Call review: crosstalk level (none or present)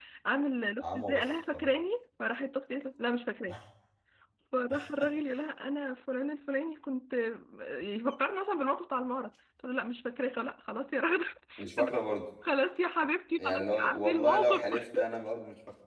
present